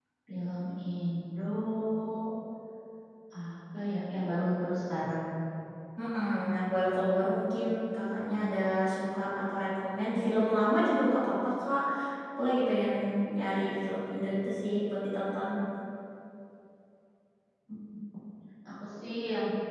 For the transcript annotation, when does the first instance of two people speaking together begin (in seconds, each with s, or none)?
none